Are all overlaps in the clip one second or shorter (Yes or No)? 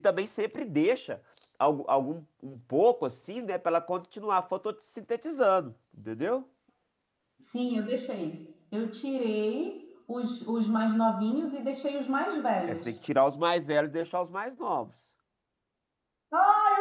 Yes